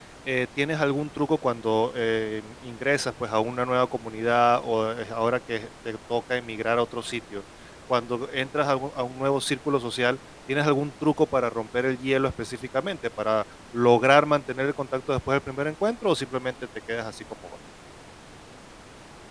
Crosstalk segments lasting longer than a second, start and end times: none

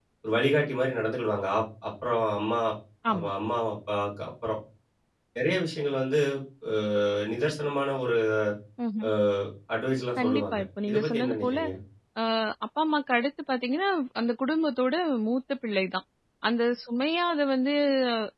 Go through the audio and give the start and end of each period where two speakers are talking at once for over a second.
10.2-11.6

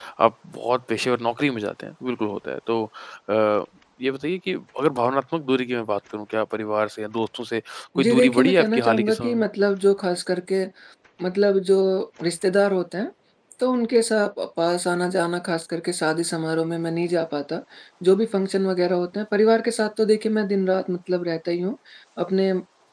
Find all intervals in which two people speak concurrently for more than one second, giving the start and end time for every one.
8.0-9.4

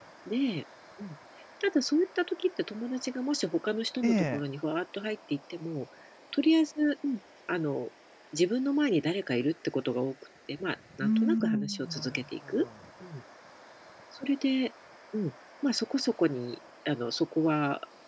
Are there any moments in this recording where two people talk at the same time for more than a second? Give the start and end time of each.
11.0-12.7

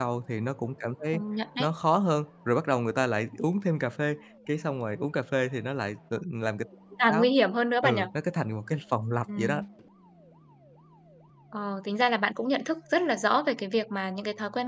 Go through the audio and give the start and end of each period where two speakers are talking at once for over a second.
none

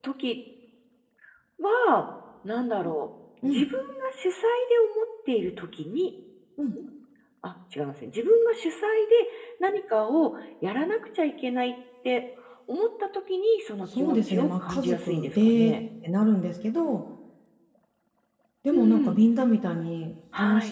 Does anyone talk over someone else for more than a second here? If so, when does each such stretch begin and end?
14.0-15.8

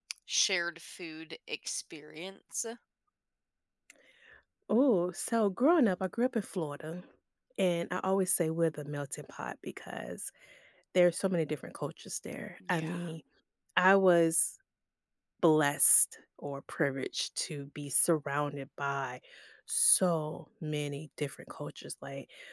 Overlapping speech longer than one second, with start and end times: none

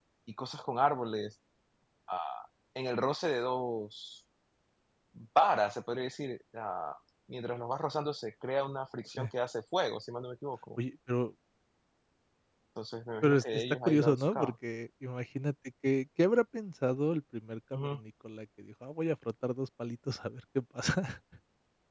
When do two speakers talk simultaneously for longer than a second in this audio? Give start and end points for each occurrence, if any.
13.2-14.5

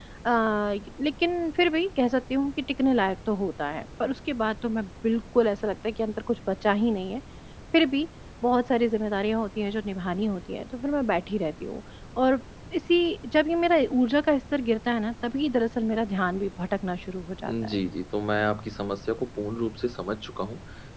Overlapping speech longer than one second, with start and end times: none

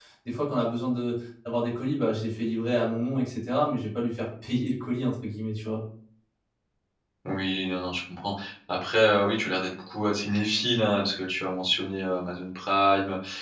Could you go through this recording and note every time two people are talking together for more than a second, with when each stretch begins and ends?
none

